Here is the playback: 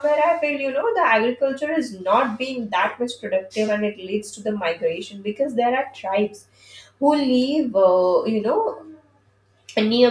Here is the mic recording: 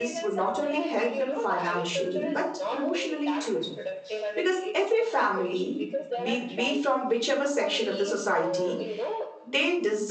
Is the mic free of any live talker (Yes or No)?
No